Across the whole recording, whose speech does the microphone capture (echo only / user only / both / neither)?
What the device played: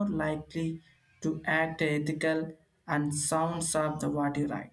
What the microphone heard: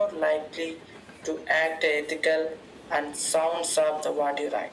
echo only